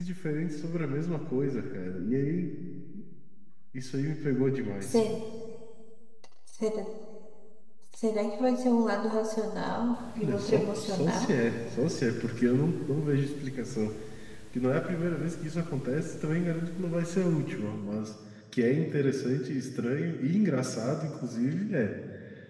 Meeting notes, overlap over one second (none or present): present